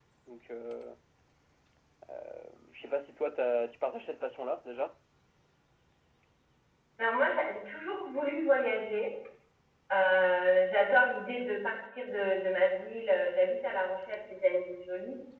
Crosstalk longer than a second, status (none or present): none